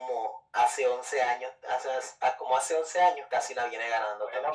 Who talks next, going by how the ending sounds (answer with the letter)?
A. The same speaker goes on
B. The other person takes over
B